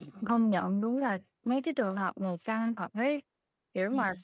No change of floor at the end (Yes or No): Yes